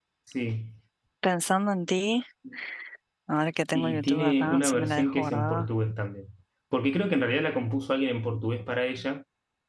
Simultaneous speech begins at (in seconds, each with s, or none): 3.7 s